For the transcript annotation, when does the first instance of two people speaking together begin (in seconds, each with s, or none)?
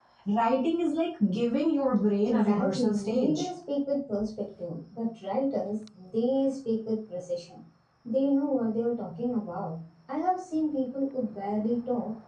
2.2 s